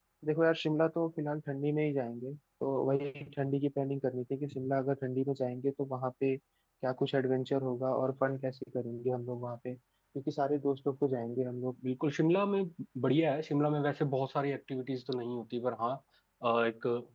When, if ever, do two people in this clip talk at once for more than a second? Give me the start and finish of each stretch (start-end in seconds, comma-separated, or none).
none